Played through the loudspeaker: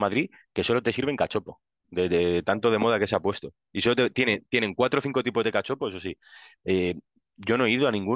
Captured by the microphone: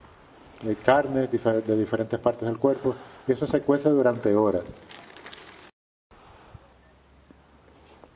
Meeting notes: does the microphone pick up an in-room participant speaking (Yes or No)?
Yes